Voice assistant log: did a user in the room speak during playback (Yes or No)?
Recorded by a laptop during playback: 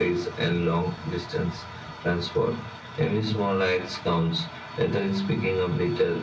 No